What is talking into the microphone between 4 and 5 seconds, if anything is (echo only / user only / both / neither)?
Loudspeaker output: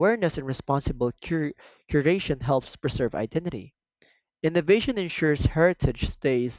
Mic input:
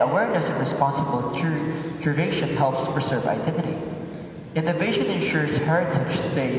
echo only